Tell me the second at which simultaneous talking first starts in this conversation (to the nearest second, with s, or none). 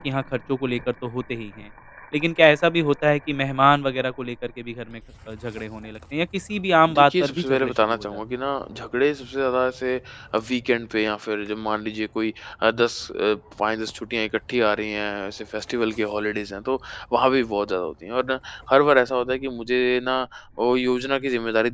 7 s